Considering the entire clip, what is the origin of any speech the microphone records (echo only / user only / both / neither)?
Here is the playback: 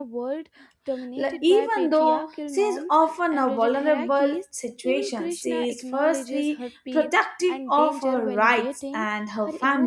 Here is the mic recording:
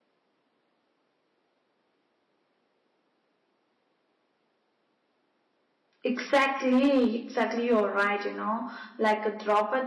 user only